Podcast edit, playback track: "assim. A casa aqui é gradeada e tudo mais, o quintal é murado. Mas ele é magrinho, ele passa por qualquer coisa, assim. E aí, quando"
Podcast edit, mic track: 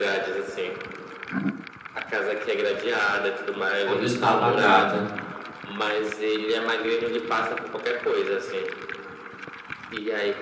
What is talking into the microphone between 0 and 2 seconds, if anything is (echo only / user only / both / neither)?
echo only